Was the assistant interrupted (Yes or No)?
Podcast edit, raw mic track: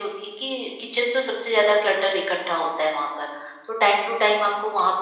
No